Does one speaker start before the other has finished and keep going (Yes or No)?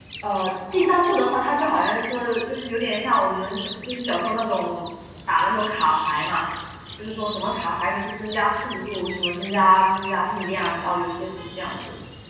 No